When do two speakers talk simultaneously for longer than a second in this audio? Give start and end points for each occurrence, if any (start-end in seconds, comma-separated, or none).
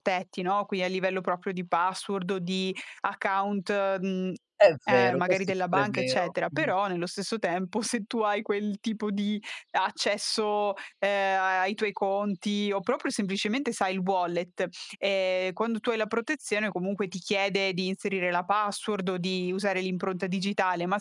4.9-6.7